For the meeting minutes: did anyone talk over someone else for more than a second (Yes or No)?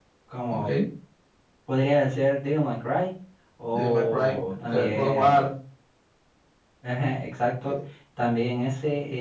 Yes